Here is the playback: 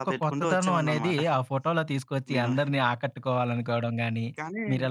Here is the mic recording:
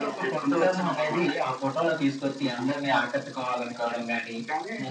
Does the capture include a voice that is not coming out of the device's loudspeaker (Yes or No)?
No